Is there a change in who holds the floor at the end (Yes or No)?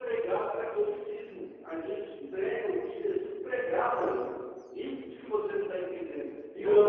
No